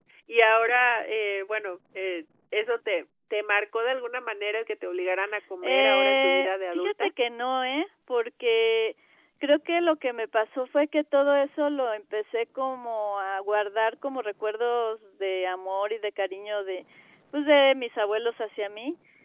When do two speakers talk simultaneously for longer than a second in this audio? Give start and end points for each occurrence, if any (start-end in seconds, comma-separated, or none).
5.6-7.1